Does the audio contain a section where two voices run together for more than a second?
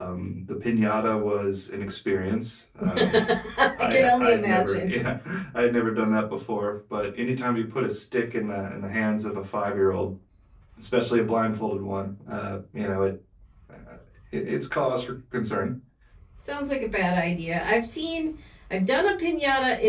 Yes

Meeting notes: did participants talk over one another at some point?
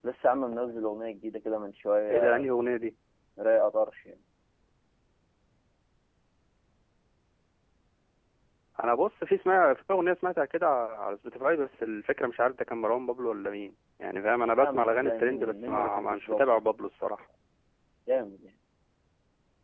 Yes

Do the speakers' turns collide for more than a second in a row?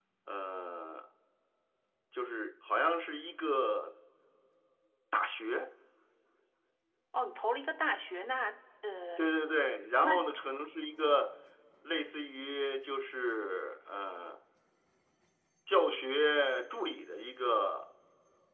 No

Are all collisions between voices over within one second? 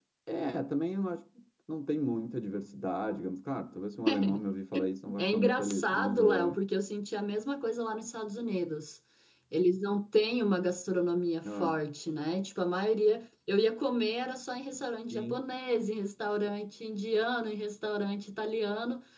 No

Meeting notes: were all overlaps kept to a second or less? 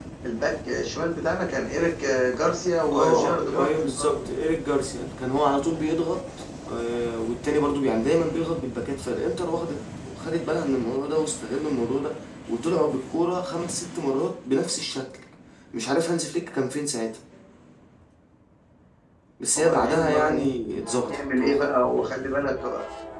No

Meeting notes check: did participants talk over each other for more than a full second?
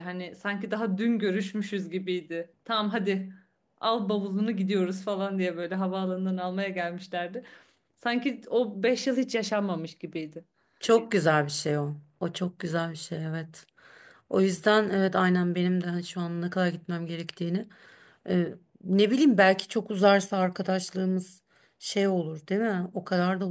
No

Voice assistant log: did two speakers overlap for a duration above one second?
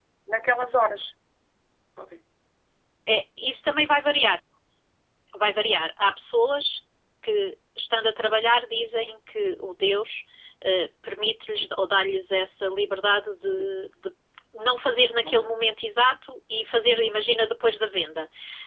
No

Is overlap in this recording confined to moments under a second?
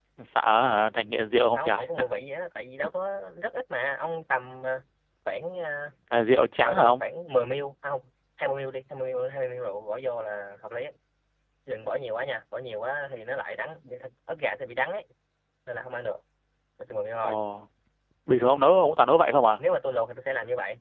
Yes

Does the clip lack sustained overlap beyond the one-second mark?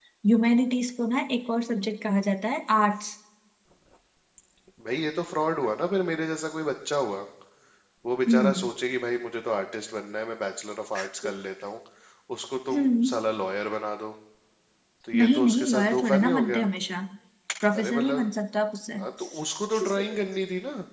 No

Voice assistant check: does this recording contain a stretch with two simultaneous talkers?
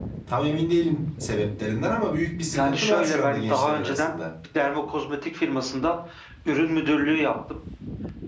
Yes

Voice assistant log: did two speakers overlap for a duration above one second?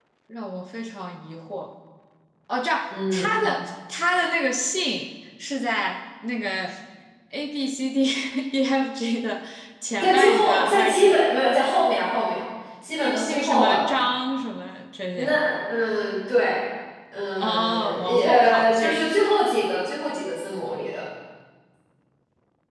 Yes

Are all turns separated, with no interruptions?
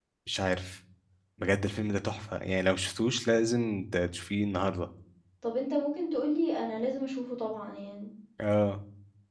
Yes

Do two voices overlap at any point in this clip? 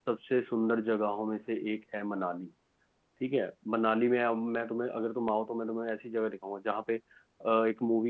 No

